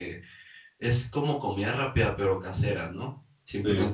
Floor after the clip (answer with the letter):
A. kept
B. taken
A